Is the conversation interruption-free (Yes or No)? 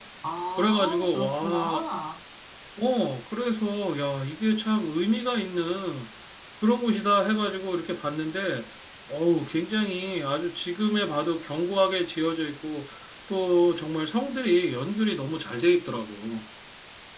No